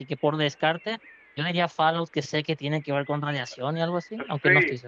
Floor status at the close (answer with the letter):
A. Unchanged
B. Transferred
B